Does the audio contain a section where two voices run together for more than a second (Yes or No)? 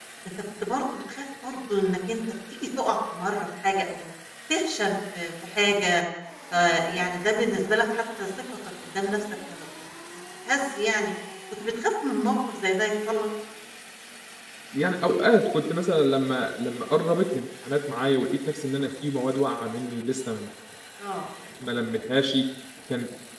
No